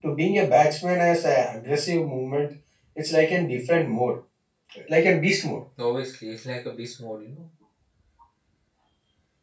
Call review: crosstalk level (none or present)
none